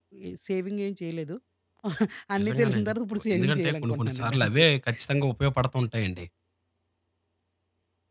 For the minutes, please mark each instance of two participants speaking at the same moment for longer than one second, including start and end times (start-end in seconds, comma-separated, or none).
3.3-4.6